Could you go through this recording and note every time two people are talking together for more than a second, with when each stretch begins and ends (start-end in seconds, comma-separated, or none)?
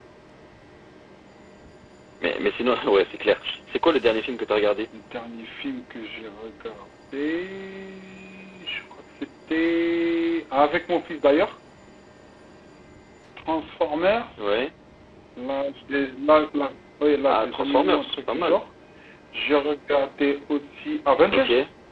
17.3-18.6